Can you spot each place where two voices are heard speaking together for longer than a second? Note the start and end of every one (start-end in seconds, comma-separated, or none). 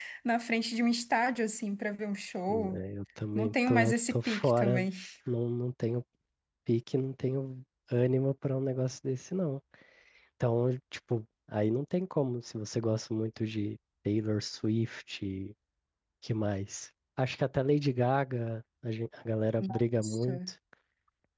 3.4-4.9